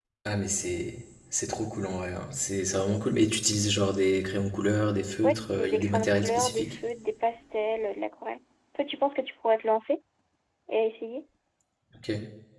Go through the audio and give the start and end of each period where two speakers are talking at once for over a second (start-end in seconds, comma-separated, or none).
5.2-6.8